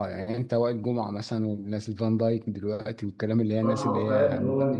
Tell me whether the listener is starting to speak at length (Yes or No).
Yes